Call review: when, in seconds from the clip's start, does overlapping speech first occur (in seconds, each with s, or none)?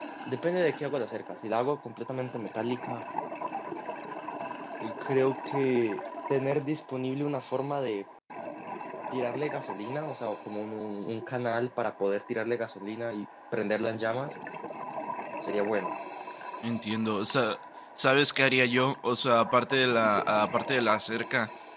none